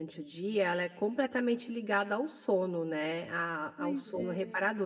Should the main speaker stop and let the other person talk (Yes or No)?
No